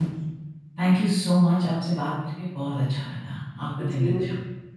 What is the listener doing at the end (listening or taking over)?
taking over